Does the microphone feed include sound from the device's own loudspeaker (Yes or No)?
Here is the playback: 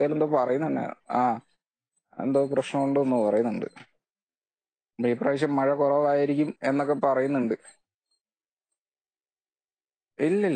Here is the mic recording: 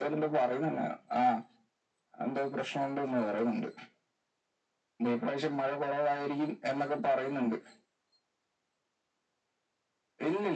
Yes